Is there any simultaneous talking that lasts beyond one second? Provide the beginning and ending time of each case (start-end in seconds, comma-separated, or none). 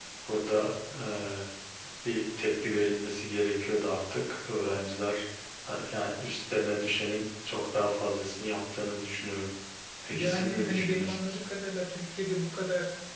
10.1-11.4